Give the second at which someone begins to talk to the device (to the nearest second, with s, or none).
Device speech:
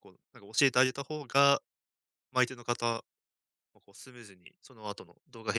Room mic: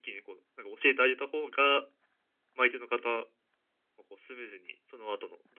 none